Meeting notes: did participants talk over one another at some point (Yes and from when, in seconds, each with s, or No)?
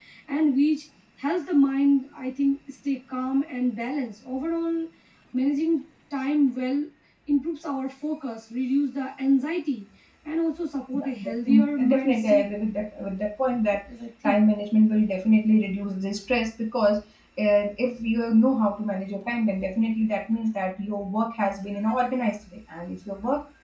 Yes, from 10.9 s